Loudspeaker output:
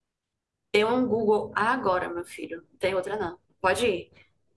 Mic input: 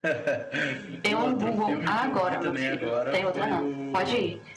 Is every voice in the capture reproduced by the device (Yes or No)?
No